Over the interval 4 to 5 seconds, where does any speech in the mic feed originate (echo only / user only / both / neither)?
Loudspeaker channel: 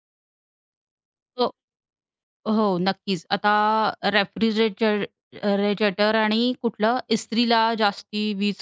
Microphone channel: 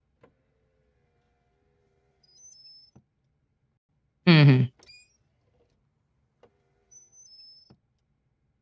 user only